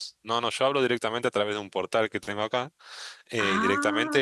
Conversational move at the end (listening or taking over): listening